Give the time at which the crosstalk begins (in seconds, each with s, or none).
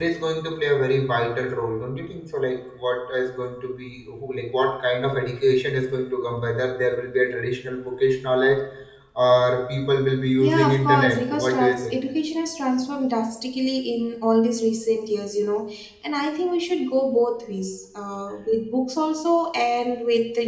10.4 s